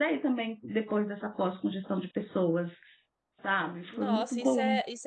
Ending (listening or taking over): taking over